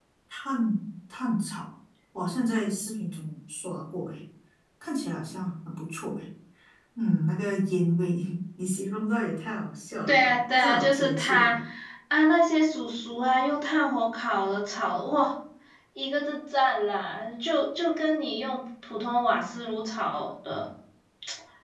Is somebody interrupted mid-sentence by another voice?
Yes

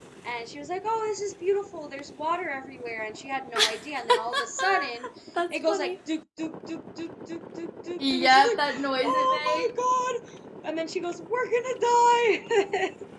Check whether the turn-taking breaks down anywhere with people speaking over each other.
Yes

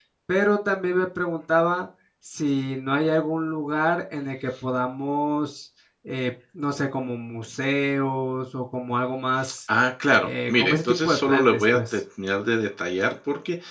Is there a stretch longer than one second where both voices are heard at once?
Yes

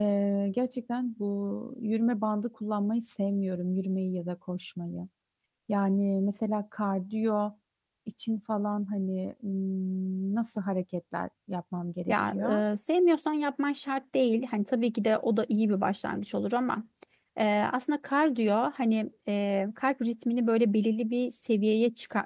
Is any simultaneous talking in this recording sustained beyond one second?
No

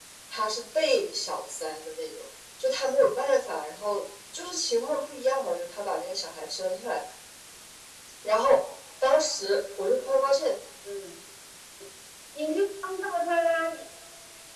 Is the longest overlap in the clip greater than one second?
No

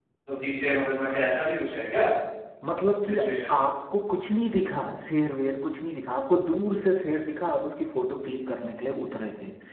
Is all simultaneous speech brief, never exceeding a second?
Yes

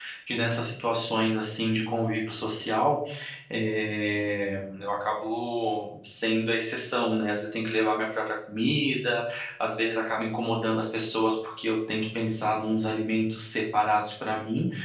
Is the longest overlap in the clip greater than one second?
No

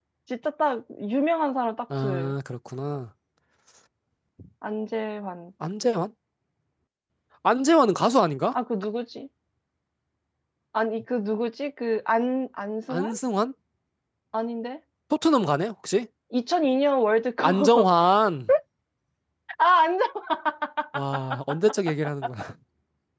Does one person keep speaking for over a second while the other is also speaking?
No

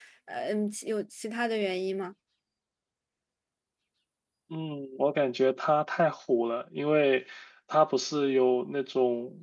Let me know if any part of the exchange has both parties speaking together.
No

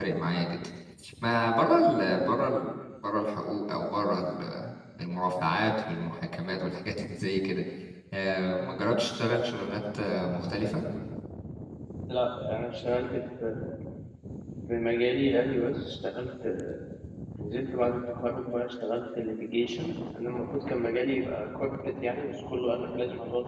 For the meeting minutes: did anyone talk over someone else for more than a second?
No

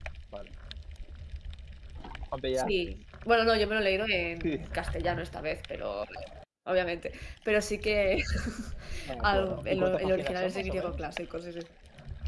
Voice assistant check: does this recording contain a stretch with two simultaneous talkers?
Yes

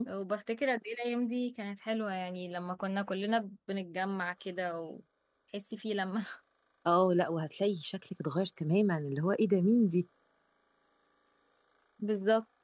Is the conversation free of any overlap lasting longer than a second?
Yes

